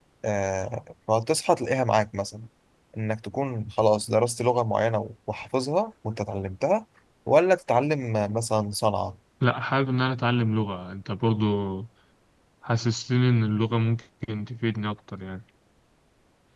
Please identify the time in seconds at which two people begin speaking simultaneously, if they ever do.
none

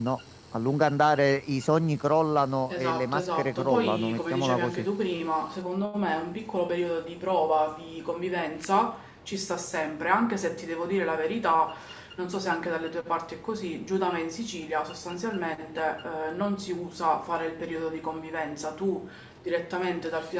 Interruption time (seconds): 2.7 s

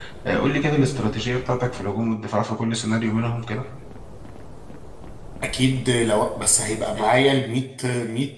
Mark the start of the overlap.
none

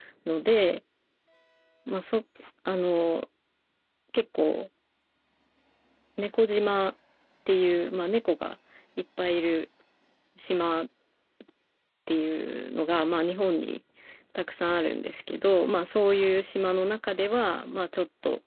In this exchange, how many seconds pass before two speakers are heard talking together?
none

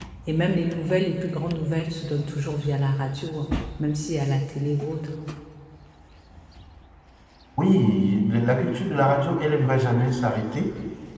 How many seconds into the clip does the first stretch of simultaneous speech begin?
none

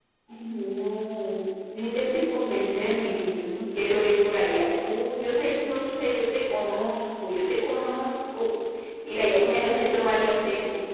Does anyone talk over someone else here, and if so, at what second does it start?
none

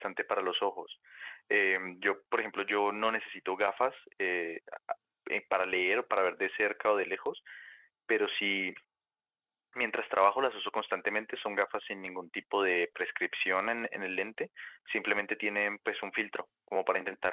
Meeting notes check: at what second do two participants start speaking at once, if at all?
none

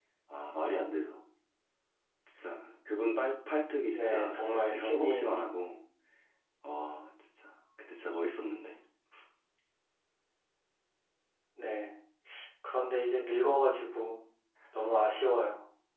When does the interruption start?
3.9 s

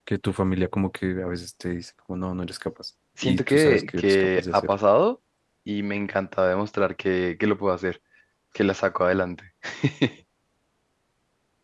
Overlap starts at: 3.2 s

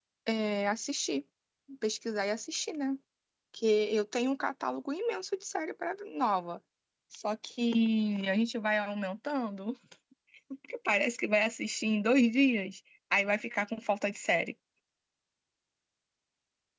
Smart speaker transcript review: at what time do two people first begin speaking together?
none

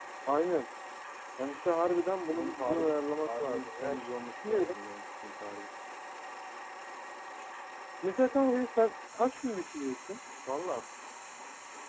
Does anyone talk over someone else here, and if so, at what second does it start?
2.3 s

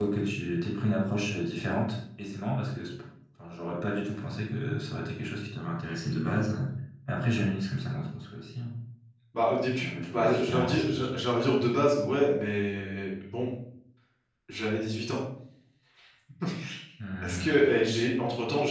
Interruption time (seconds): 9.8 s

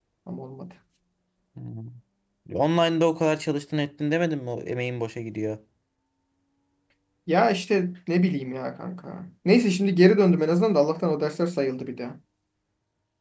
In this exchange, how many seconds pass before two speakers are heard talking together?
none

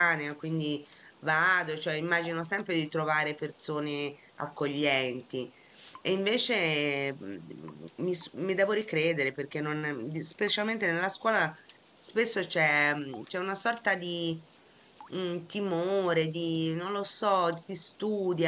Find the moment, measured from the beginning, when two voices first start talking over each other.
none

